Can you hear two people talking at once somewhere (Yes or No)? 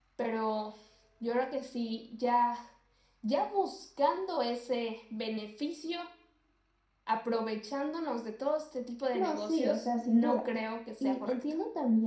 Yes